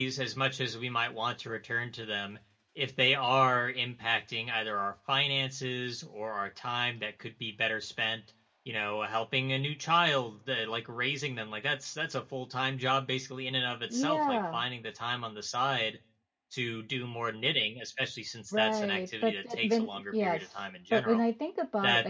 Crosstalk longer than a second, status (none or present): present